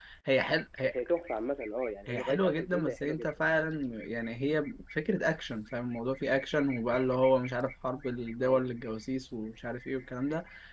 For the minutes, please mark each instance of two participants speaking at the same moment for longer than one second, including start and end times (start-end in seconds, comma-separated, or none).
2.1-3.4